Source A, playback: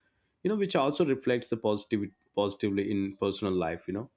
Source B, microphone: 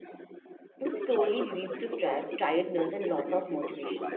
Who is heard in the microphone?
both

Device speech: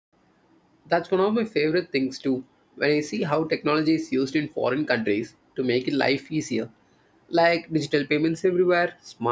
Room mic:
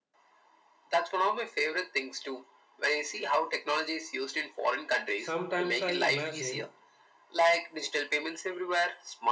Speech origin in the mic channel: both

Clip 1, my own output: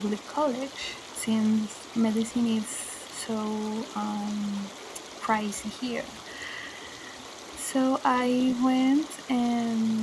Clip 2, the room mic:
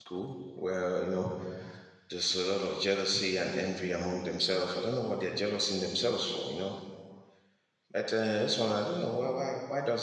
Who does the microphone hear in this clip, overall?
user only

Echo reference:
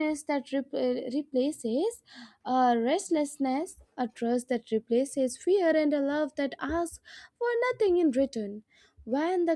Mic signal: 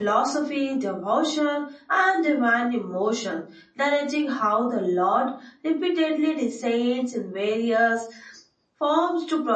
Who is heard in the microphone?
user only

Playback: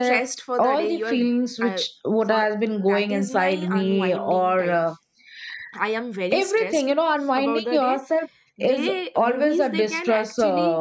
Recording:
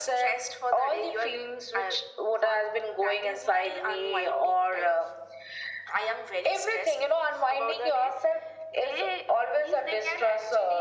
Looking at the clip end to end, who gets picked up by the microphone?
echo only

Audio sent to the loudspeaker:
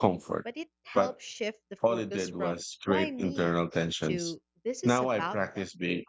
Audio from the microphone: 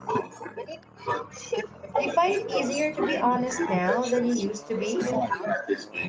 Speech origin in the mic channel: both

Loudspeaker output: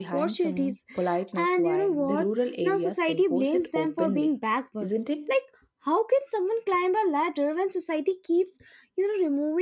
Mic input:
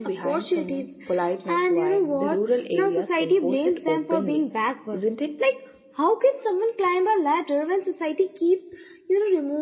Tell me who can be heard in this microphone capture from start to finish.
echo only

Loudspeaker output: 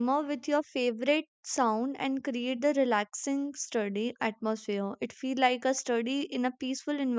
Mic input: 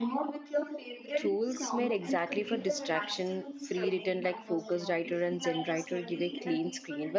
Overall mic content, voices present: both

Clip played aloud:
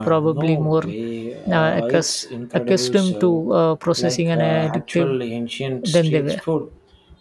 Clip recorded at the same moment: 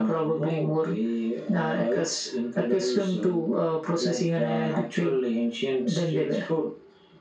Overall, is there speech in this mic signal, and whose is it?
echo only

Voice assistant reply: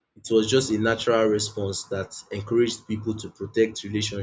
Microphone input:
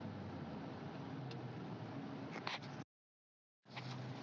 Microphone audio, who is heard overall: neither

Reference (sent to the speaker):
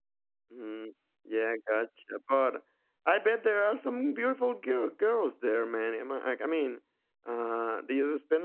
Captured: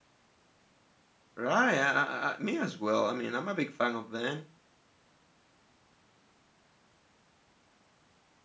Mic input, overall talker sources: user only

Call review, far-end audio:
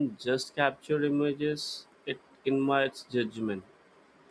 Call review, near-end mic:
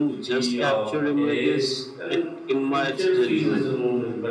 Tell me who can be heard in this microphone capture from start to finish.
both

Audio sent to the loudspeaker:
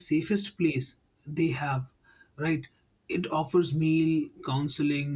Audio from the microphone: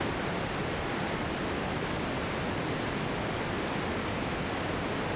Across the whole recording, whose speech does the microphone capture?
neither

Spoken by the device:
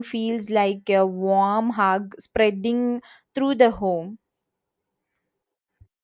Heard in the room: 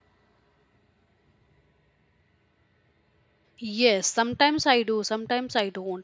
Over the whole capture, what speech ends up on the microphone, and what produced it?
user only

